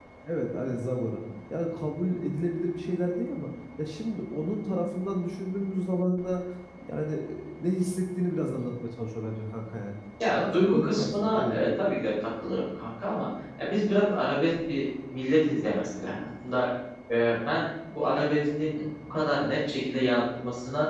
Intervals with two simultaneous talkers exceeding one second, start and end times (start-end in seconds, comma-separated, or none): 10.4-11.6